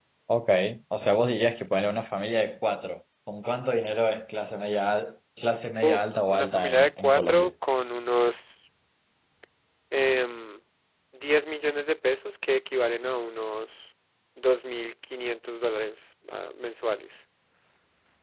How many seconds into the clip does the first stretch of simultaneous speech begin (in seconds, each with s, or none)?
5.8 s